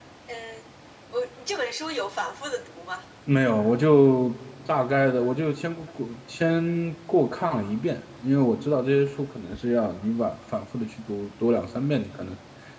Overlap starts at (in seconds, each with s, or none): none